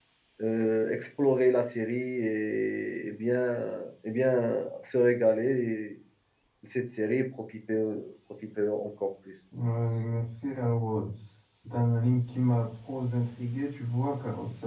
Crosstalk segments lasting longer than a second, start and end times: none

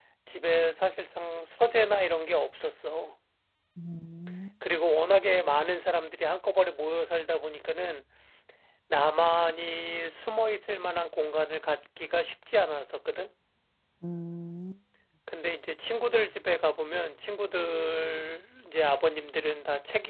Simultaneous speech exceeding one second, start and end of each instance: none

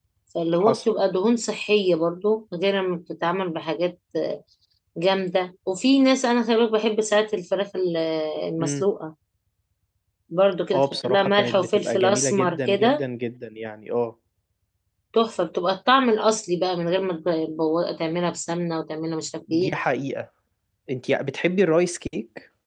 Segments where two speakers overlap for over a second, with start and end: 10.7-13.1

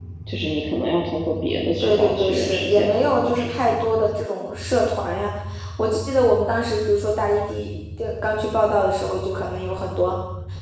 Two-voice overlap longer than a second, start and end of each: 1.8-3.8

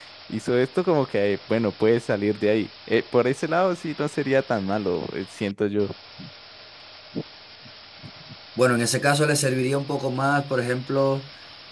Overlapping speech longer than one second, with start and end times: none

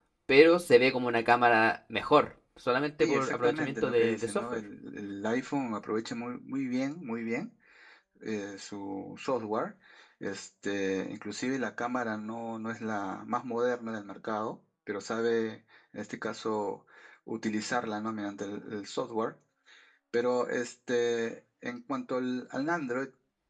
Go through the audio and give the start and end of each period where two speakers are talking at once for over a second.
3.0-4.4

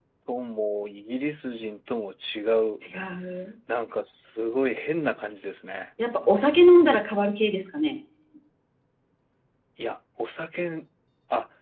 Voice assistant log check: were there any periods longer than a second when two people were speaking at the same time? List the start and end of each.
none

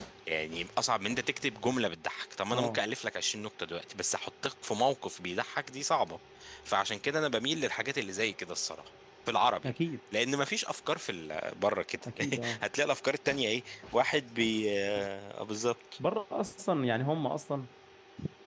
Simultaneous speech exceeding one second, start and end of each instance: none

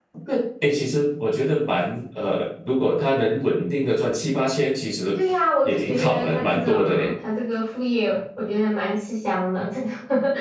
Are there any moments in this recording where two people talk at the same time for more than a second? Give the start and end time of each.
5.7-7.1

